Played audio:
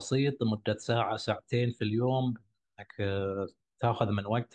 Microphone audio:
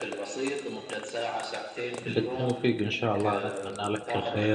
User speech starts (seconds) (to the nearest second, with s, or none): 2 s